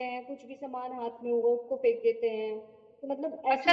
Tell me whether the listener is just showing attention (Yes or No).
No